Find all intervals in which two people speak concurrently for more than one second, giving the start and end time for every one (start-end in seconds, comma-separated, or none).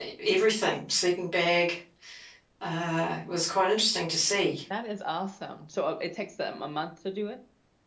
none